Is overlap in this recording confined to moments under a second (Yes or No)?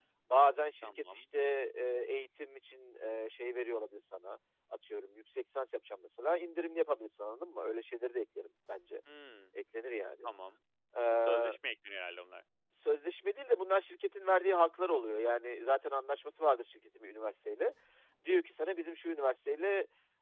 Yes